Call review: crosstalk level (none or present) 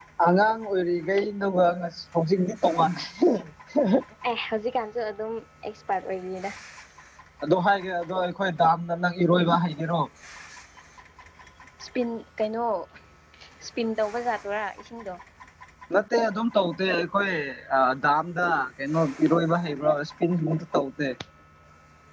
none